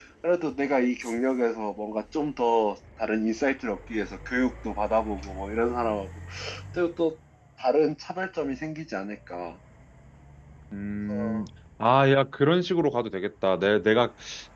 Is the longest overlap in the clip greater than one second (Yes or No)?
No